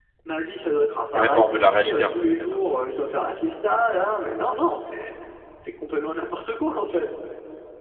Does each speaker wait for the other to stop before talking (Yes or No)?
No